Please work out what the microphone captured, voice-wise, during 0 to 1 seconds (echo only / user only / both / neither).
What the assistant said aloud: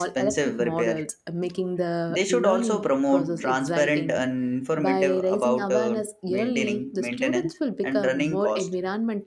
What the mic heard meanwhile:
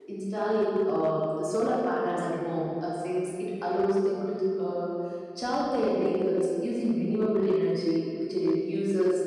user only